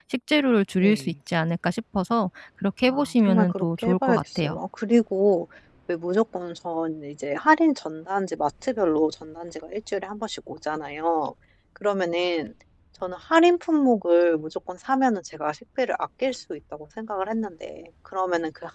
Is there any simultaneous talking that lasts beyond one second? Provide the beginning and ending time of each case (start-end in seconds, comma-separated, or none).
2.9-4.6